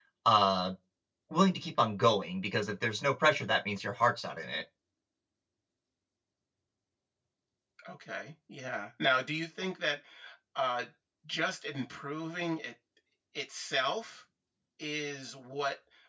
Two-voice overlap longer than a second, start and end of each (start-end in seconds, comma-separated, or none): none